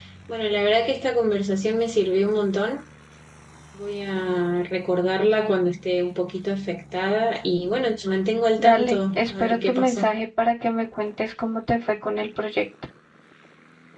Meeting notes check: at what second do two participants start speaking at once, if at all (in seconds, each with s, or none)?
8.6 s